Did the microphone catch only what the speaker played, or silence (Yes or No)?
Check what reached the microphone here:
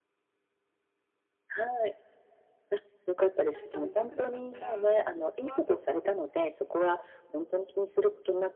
No